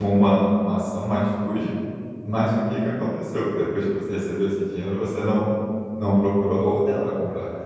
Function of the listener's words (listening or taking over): taking over